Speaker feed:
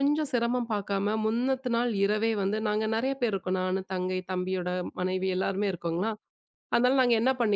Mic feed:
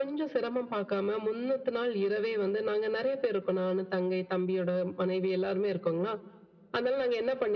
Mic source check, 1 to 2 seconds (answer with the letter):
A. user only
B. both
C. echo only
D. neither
C